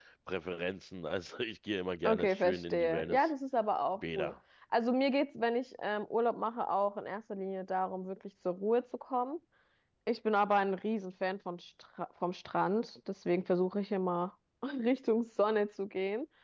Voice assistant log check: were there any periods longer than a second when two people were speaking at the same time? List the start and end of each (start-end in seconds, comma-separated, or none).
2.0-3.3